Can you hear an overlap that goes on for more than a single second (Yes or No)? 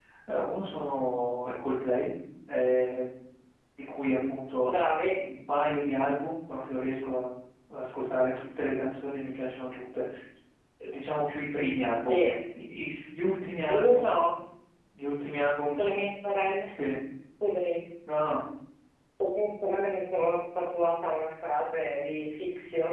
No